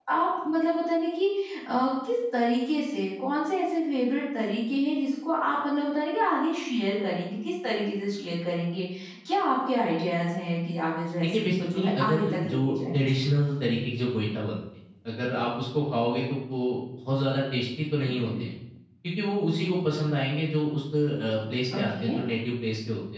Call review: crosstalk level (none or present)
present